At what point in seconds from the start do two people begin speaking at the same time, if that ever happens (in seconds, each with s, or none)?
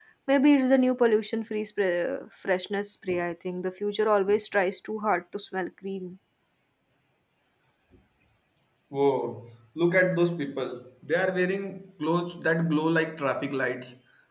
none